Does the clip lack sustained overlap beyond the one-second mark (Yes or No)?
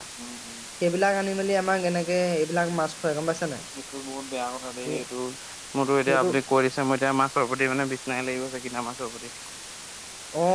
Yes